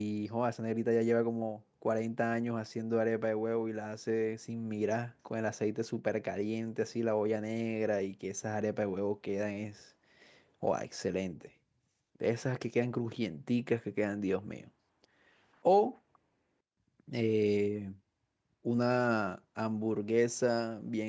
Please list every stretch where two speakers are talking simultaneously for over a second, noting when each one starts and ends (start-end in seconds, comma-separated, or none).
none